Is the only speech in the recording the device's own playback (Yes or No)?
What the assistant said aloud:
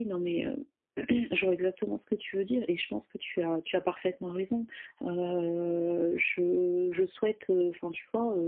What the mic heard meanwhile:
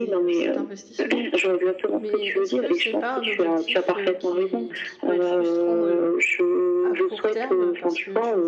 No